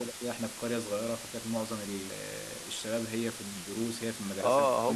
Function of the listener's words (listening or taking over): taking over